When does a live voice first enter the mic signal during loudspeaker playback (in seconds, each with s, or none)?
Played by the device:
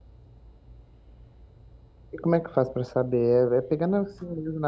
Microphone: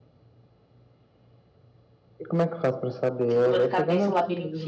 3.3 s